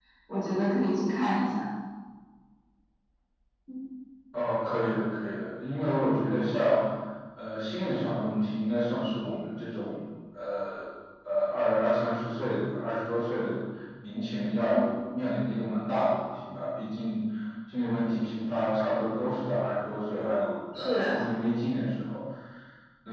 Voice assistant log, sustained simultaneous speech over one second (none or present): none